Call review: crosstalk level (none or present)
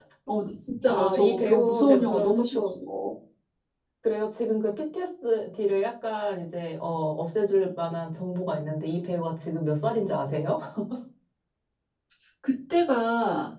present